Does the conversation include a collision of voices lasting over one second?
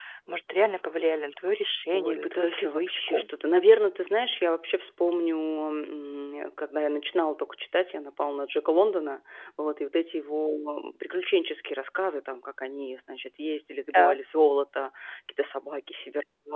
Yes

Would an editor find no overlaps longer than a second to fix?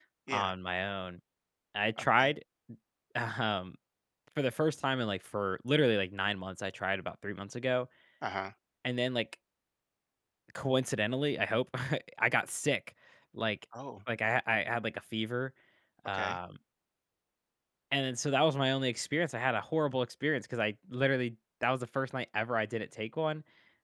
Yes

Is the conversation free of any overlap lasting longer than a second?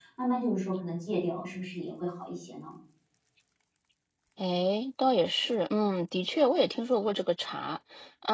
Yes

